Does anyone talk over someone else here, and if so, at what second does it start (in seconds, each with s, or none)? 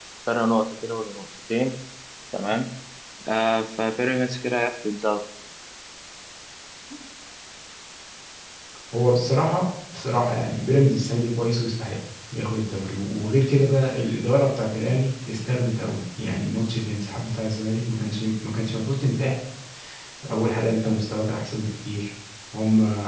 none